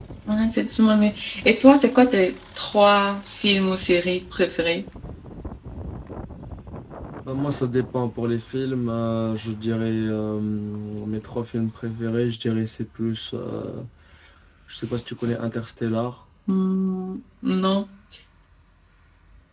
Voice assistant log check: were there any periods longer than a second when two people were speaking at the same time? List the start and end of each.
none

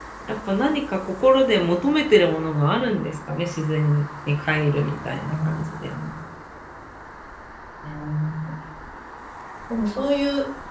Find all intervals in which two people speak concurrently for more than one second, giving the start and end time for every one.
none

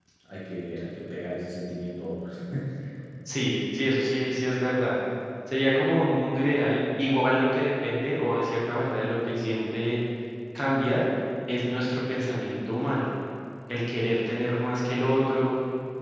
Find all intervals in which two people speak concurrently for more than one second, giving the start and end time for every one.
none

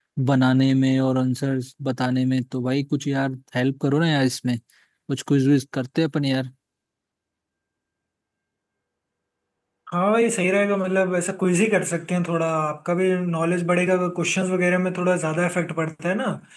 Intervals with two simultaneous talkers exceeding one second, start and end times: none

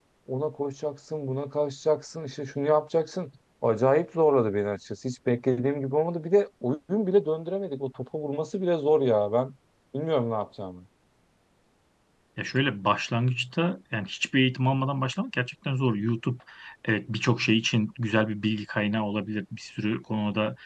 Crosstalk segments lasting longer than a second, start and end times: none

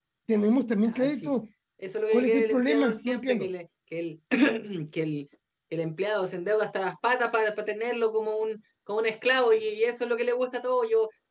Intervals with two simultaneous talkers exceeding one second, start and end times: 2.1-3.5

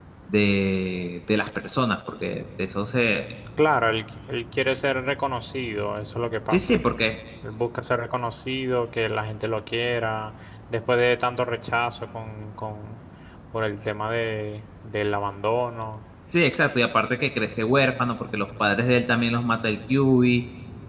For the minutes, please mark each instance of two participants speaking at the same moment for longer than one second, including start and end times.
none

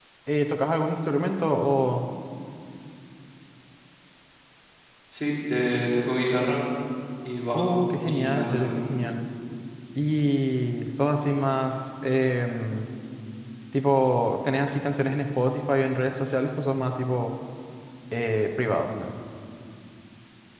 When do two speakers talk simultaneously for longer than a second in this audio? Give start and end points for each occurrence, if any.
7.5-8.9

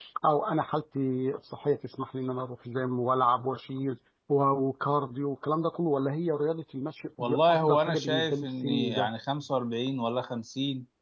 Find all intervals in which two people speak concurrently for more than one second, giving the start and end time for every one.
7.5-9.1

